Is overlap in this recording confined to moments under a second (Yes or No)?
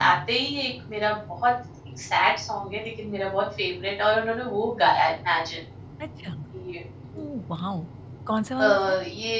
Yes